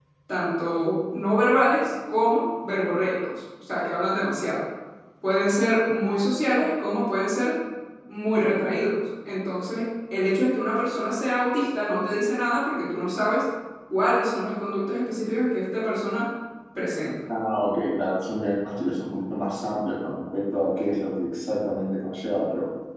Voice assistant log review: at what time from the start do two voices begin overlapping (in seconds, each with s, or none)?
none